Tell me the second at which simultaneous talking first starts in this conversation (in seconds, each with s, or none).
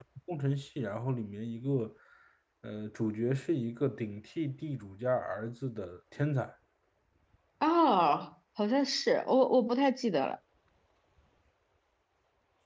none